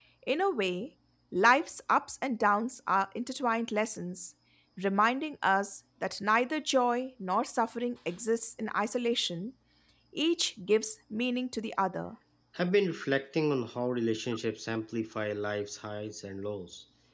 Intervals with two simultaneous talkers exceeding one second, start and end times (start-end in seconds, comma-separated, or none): none